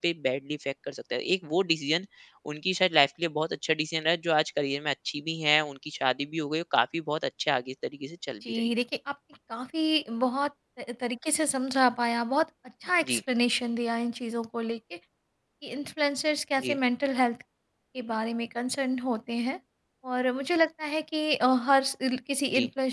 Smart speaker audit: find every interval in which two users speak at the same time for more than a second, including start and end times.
none

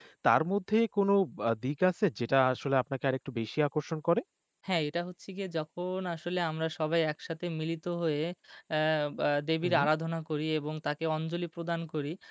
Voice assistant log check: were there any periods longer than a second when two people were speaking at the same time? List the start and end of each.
none

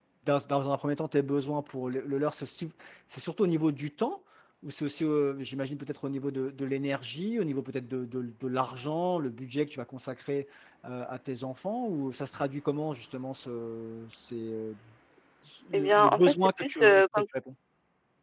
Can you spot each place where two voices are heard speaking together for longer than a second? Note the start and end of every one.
15.7-17.2

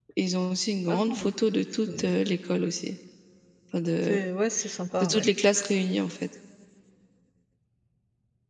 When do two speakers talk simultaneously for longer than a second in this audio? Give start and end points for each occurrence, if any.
none

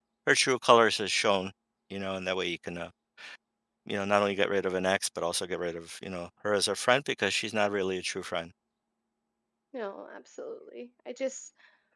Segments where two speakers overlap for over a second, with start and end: none

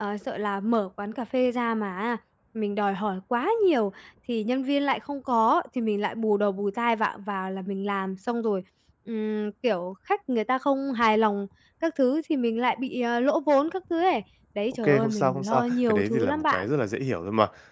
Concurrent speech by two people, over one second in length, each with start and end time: 14.8-16.7

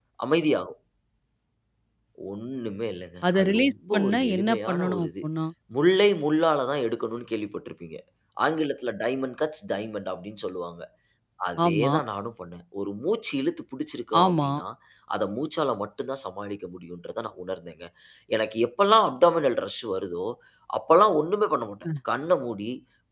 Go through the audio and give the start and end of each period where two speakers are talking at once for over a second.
3.3-5.1

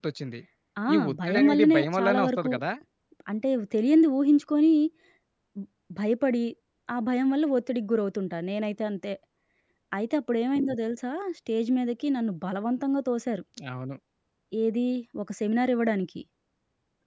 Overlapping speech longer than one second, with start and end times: 0.9-2.5

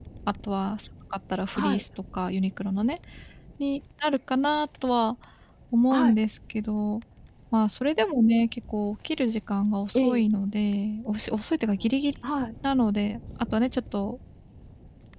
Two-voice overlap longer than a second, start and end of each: none

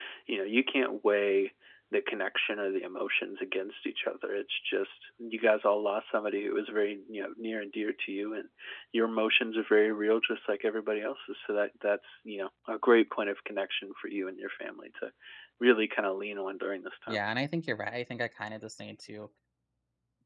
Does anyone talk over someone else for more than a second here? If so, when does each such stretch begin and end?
none

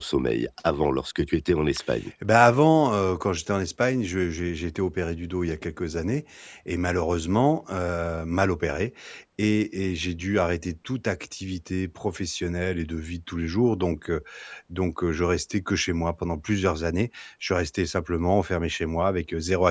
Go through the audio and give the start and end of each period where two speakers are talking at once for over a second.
none

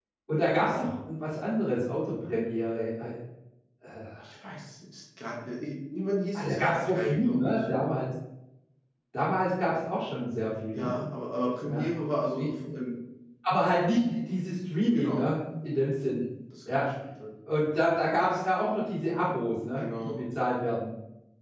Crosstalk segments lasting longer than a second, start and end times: 6.3-7.6

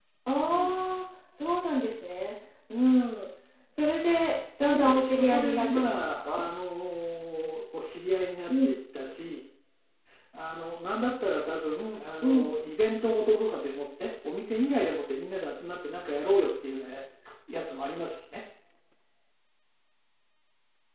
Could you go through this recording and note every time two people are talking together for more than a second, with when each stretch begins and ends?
4.7-6.4

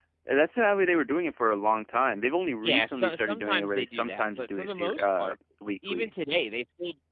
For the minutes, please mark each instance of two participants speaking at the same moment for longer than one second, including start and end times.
2.6-5.4

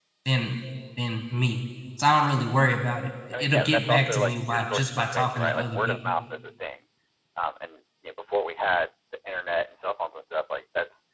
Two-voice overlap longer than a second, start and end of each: 3.3-6.0

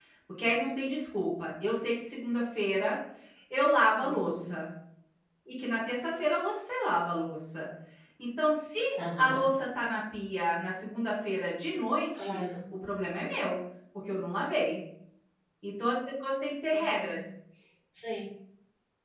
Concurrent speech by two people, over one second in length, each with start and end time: none

